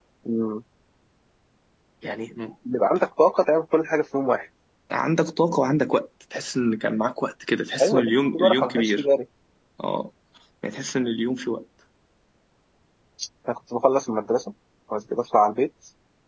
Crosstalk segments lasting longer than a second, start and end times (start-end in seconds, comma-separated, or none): 7.8-9.1